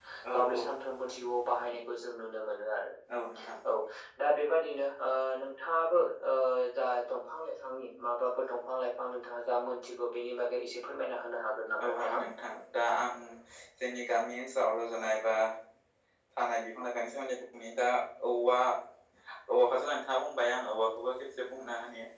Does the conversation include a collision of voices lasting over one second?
No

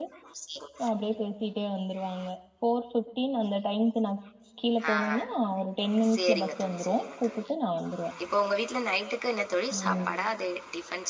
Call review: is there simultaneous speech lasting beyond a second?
Yes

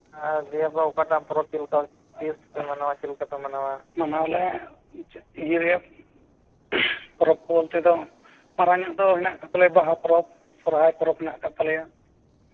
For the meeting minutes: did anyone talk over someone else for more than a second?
No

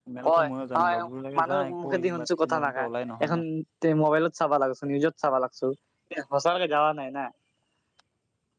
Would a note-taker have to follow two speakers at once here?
Yes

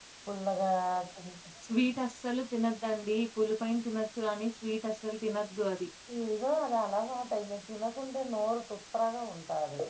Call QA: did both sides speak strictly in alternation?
Yes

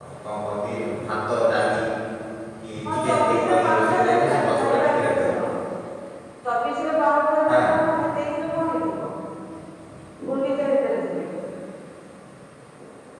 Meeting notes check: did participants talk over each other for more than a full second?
Yes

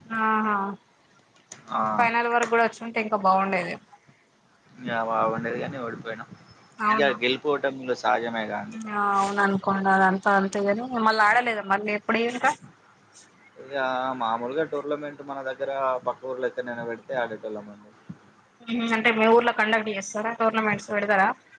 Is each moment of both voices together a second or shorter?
Yes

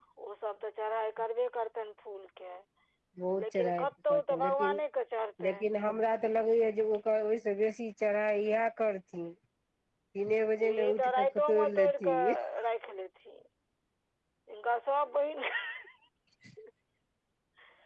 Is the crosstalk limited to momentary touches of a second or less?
No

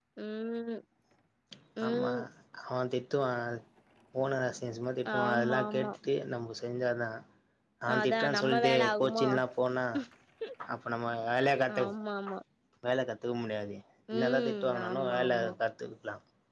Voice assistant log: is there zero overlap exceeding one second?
No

